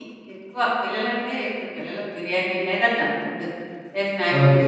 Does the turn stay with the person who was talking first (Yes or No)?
No